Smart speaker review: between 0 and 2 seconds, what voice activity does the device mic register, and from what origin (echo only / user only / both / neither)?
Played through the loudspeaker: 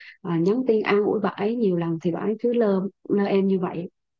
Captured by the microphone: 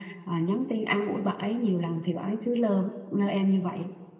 echo only